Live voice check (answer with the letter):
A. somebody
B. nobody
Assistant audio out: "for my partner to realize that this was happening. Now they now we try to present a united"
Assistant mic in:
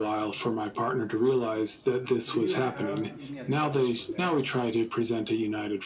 A